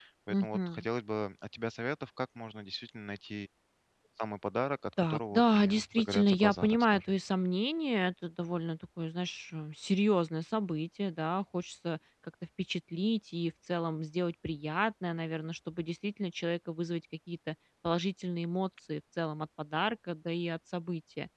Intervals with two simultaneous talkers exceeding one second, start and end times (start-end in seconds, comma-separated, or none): 5.0-7.1